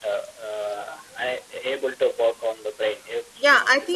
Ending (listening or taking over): taking over